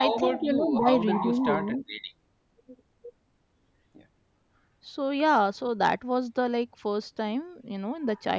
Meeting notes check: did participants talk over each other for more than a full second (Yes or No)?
Yes